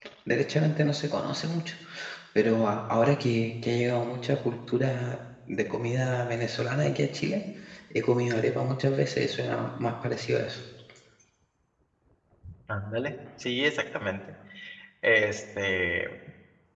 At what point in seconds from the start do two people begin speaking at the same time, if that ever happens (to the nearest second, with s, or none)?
none